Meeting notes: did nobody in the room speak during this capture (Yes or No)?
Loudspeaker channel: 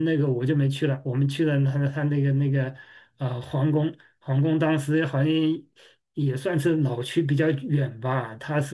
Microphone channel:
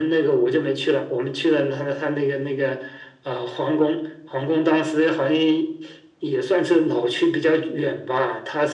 Yes